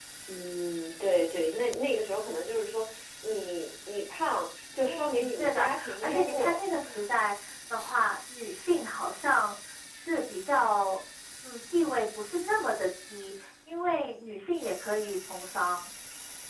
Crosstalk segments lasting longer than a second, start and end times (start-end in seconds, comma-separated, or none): 4.8-6.6